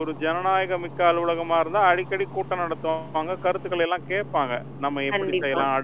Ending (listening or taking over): listening